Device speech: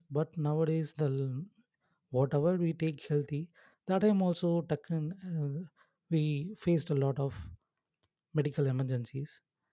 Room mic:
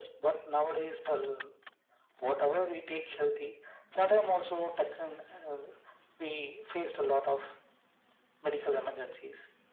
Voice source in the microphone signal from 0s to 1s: echo only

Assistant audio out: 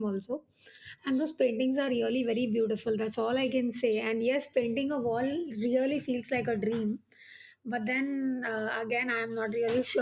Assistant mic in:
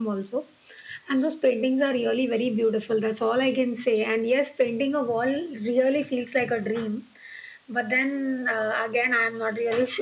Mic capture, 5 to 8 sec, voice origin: echo only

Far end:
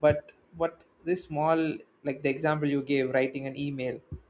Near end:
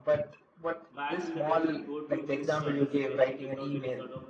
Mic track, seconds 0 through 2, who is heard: both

